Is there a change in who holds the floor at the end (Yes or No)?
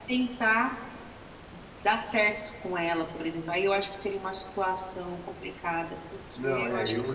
Yes